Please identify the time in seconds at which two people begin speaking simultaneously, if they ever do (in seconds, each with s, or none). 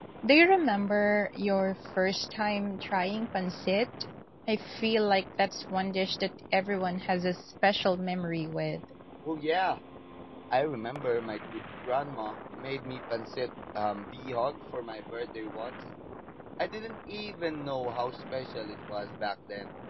none